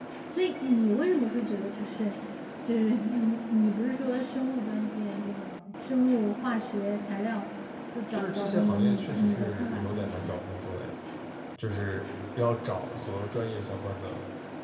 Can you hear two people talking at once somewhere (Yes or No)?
Yes